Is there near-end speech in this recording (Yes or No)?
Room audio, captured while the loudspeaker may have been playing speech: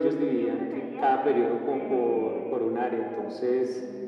Yes